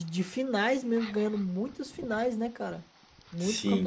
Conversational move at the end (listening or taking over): taking over